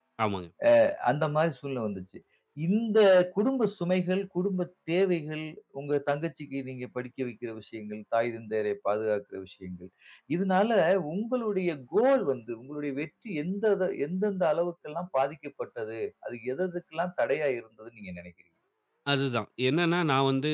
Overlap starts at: none

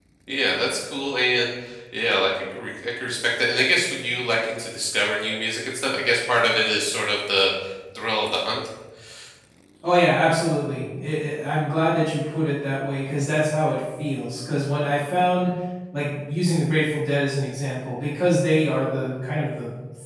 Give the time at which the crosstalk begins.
none

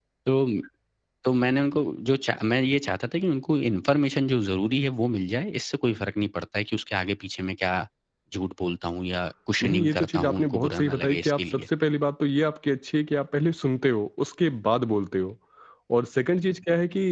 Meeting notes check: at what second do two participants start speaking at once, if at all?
9.6 s

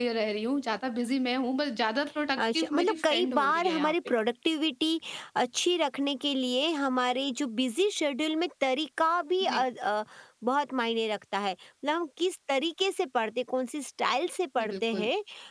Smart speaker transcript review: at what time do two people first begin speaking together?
2.4 s

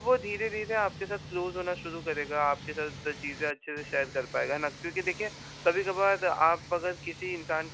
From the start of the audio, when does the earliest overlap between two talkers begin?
none

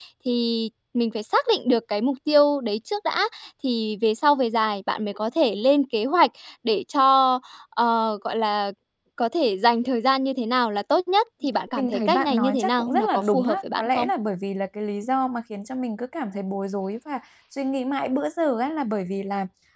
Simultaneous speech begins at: 11.7 s

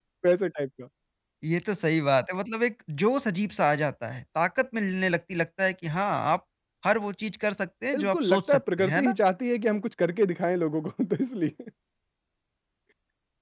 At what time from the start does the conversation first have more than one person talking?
7.9 s

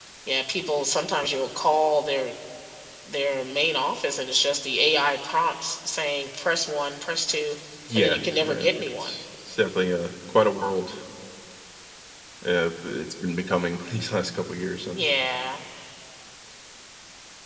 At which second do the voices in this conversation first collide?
8.0 s

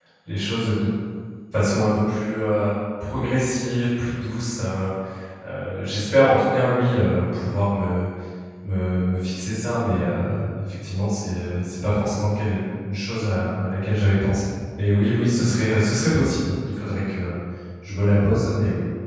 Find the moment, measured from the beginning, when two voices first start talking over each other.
none

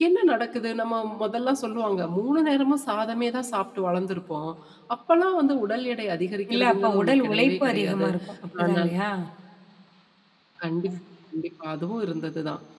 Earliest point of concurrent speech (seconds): 6.5 s

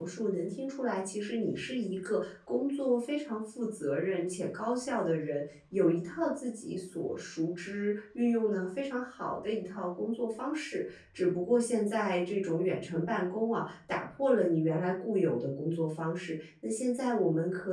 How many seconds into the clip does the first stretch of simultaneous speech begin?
none

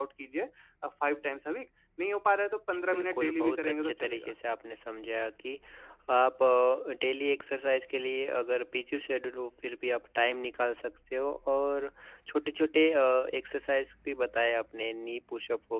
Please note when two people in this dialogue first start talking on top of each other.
2.9 s

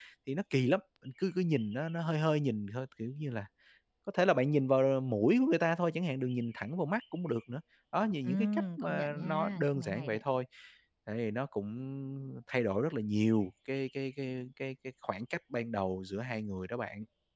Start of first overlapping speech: 8.2 s

